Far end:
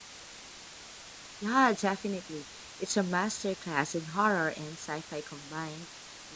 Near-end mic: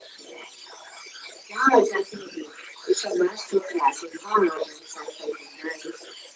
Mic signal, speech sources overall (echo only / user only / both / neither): echo only